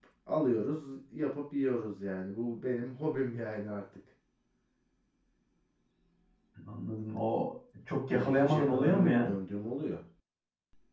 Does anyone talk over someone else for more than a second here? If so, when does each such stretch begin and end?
8.1-9.3

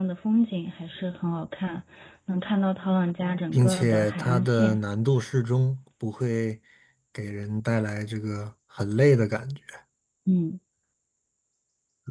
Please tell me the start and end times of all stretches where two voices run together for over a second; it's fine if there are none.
3.5-4.8

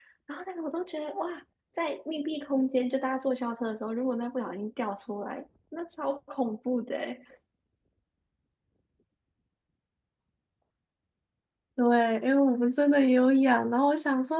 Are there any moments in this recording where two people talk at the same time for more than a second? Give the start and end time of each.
none

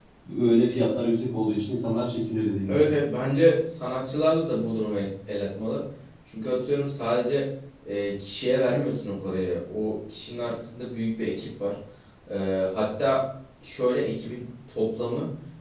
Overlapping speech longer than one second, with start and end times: none

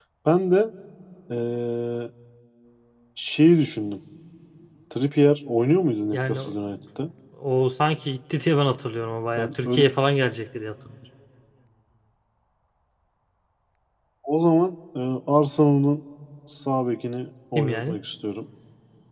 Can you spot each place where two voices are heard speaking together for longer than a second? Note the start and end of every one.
none

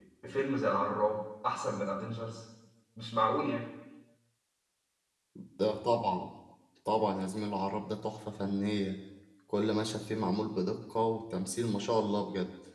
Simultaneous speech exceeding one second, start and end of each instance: none

